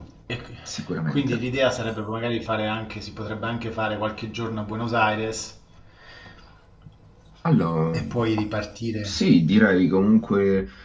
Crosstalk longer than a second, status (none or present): none